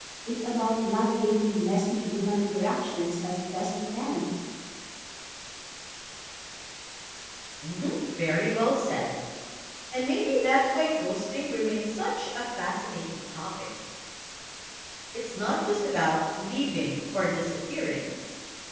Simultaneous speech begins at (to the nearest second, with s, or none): none